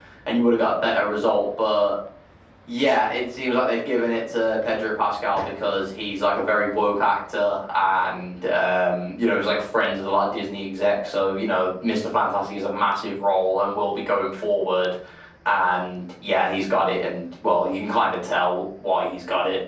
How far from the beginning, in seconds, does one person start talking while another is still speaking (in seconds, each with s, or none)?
none